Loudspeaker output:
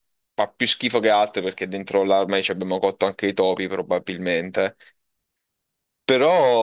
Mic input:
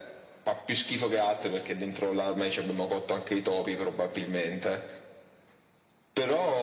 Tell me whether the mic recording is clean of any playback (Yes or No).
No